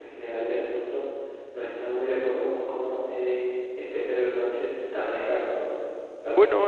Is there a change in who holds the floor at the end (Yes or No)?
No